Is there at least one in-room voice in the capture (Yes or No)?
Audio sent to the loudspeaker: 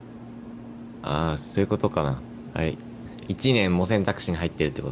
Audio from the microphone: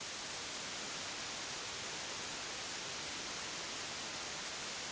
No